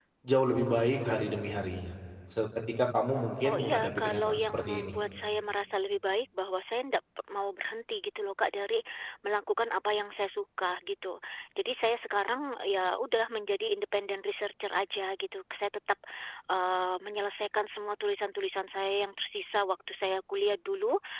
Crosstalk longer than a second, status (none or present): present